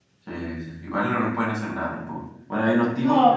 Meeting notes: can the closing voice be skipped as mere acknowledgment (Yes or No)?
Yes